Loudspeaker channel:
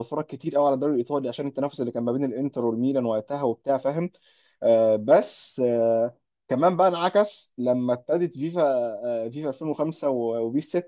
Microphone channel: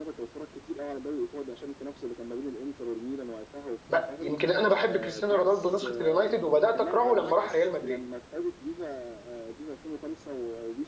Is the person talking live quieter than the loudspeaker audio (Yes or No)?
No